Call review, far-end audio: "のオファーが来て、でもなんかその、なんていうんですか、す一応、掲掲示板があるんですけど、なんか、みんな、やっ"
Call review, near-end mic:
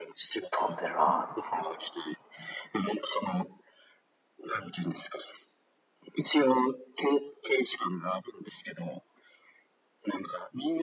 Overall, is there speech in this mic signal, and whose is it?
both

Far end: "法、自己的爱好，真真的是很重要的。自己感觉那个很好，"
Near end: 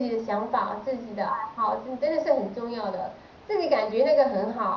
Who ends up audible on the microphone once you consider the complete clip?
echo only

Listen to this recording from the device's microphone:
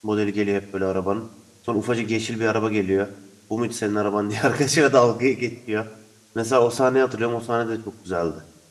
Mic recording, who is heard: user only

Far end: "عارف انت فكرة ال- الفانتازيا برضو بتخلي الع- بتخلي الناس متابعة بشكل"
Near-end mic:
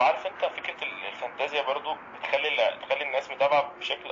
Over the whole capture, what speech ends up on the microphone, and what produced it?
echo only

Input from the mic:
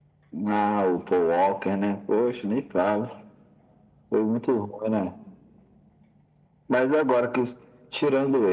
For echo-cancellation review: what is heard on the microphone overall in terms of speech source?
echo only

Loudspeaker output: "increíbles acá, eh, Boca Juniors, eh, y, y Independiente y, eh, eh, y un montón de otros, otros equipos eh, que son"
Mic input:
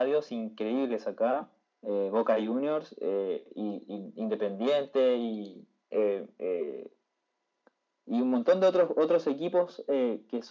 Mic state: echo only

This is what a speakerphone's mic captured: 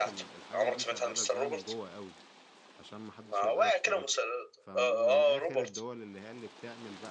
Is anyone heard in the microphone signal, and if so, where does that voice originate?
both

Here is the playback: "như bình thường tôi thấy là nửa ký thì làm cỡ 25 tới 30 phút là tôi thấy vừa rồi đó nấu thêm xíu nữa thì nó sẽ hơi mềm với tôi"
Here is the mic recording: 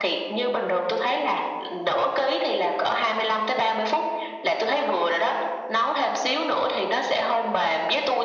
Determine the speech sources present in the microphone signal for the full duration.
echo only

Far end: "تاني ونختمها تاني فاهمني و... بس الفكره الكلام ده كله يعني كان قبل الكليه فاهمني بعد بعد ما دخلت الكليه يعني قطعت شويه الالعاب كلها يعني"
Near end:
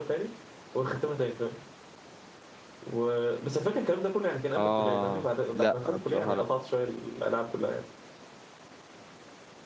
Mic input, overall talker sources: both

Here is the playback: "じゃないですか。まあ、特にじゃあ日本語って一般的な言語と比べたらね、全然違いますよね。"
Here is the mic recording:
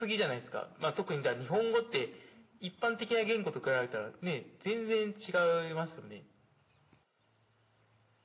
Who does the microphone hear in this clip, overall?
echo only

